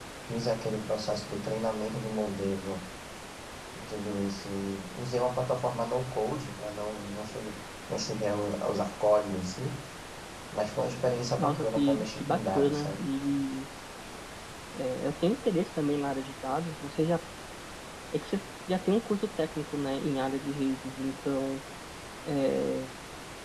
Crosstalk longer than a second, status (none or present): present